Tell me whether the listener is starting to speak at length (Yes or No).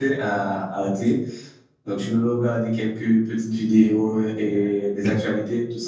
No